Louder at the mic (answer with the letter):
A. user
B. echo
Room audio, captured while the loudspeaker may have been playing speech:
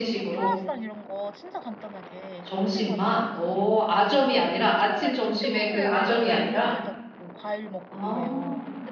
B